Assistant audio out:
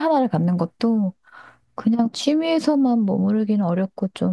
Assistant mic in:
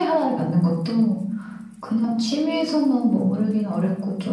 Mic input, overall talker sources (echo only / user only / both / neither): echo only